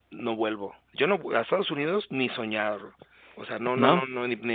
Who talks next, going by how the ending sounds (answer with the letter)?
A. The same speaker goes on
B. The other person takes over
A